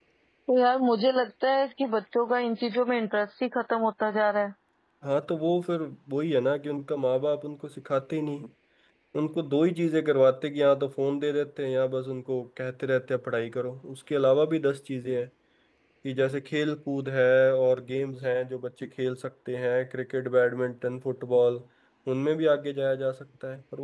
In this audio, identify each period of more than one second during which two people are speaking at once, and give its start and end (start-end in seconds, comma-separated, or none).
none